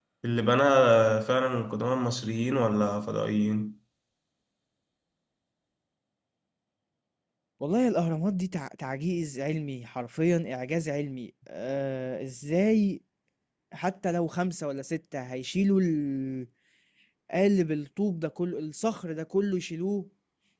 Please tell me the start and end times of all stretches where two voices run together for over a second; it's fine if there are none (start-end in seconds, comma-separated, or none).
none